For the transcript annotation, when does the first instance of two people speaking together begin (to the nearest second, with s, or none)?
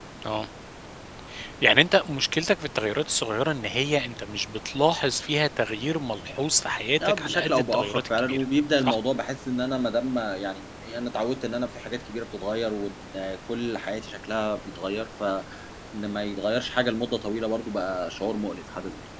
7 s